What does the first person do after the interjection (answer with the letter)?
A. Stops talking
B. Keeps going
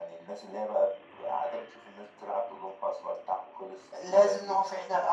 A